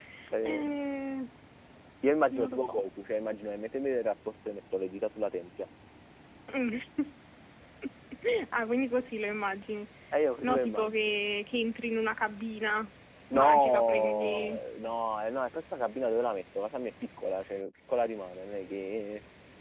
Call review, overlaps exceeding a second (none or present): present